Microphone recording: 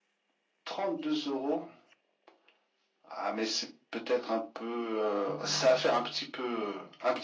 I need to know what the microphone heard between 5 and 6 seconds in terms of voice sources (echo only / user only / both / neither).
both